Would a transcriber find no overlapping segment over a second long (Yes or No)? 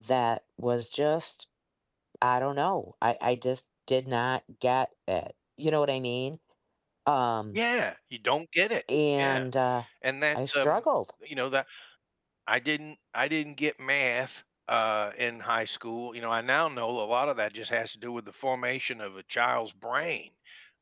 Yes